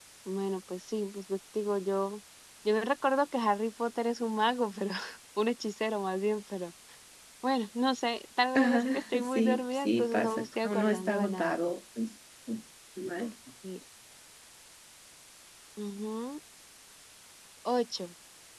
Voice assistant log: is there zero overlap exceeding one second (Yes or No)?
No